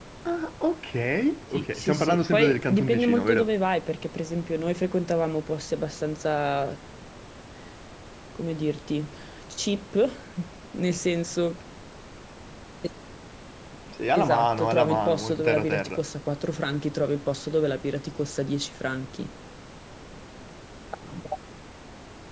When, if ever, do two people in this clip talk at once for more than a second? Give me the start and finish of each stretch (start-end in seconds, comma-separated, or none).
1.5-3.5, 14.2-16.0